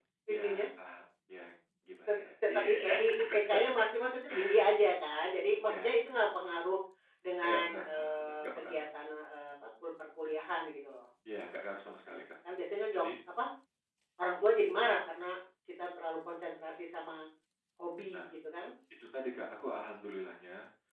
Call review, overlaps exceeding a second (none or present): present